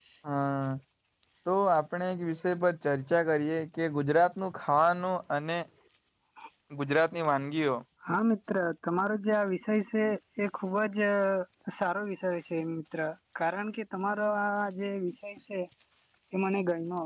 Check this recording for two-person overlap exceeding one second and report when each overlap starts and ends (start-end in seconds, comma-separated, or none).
none